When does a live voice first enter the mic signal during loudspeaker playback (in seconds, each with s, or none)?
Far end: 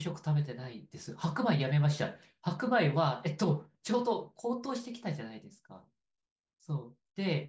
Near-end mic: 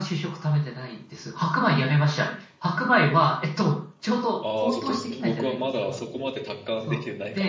4.4 s